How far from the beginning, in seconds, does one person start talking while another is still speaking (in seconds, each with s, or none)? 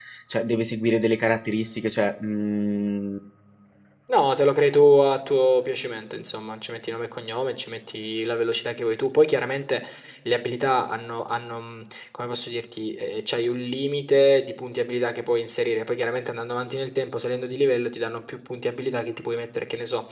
none